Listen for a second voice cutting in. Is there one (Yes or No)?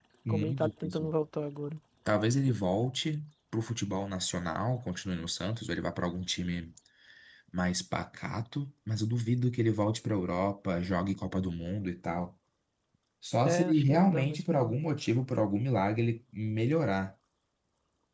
Yes